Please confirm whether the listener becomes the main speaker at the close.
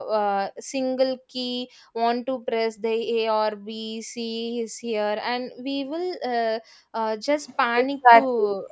Yes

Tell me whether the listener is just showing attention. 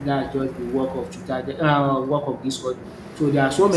Yes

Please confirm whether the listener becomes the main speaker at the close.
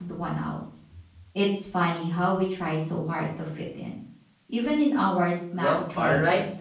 Yes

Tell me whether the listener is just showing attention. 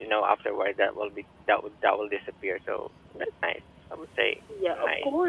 No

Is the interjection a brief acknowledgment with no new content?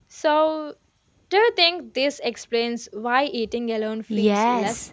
No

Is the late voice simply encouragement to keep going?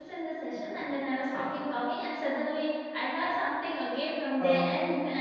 Yes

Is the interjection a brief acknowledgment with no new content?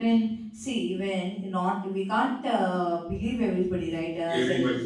Yes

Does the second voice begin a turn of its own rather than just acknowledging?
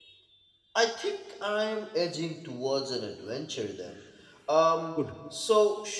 No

